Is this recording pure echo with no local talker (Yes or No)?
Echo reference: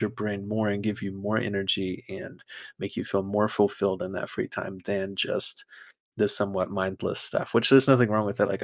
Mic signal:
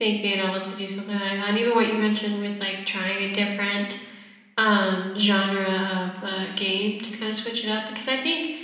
No